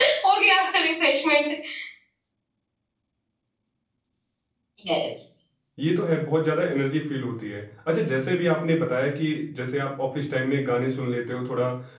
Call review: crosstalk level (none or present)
none